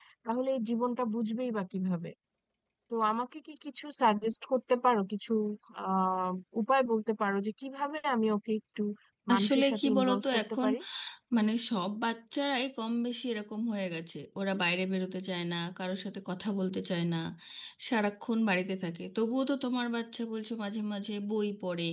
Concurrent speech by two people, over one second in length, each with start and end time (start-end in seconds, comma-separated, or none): 9.3-10.7